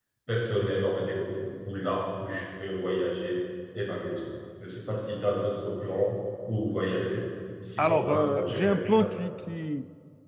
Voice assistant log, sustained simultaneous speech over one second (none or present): present